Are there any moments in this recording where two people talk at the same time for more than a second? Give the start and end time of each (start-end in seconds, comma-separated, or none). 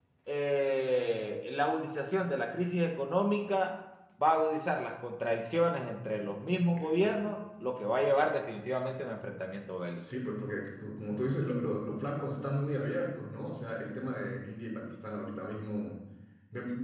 none